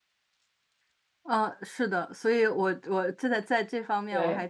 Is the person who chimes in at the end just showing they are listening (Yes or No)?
Yes